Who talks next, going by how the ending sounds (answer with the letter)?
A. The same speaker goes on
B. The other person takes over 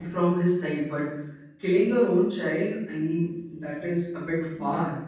B